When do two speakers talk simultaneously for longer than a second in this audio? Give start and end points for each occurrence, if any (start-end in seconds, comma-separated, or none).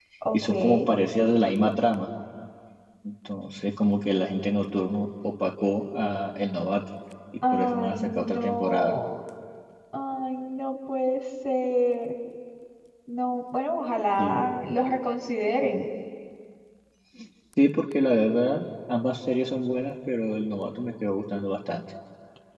7.5-9.0